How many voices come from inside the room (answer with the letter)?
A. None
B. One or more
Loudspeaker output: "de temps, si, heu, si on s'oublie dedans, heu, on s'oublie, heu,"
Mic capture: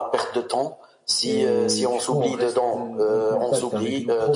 B